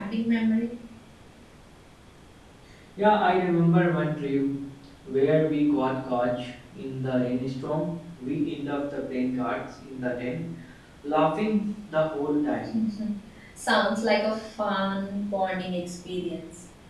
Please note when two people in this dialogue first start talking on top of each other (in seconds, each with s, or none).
none